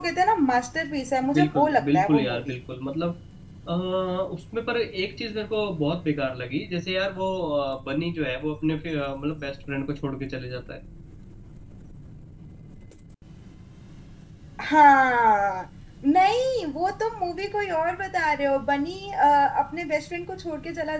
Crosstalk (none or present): present